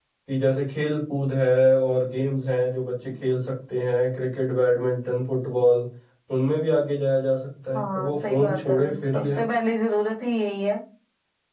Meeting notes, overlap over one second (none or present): present